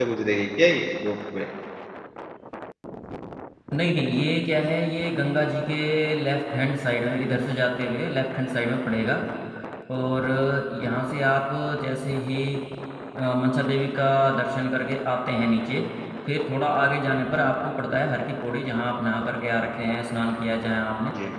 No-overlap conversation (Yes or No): Yes